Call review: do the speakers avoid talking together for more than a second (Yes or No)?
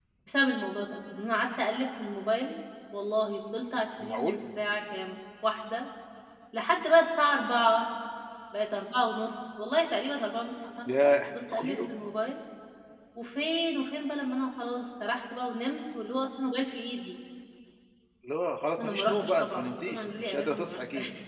No